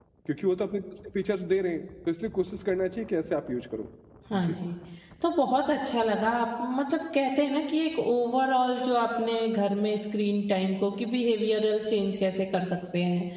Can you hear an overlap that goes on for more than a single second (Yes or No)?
No